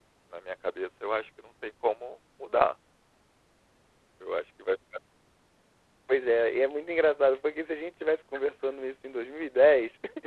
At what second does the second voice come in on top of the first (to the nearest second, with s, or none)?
none